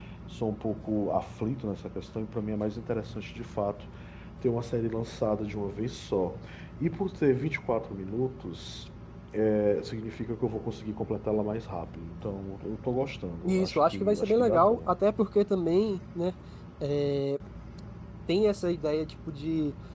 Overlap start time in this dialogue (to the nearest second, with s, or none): 13 s